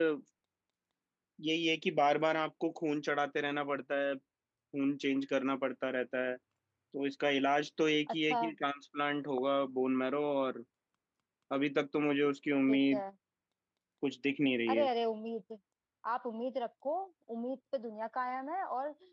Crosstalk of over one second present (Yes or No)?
No